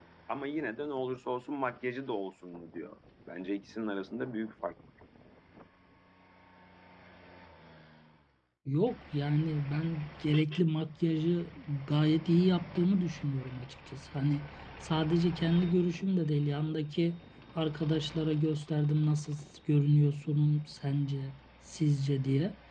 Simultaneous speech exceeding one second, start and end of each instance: none

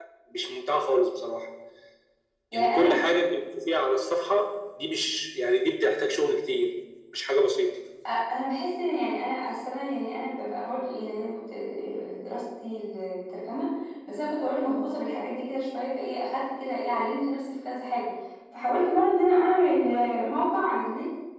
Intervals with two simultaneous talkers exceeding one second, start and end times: none

